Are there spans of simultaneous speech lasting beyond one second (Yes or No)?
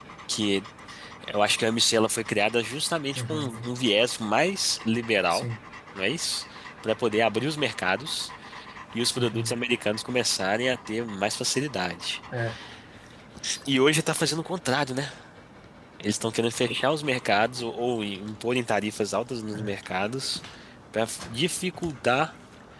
No